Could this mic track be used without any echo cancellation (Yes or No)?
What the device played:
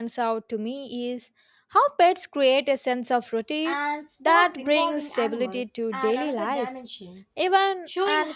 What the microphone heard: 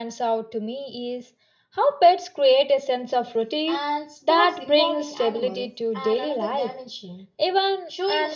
No